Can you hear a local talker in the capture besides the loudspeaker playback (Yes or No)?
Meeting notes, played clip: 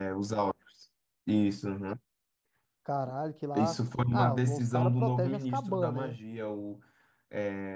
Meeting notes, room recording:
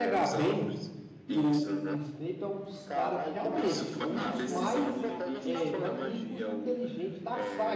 Yes